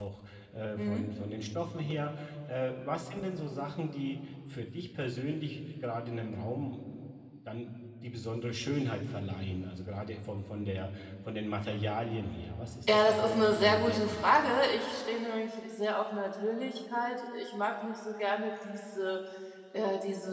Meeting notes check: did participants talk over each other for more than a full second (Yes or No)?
Yes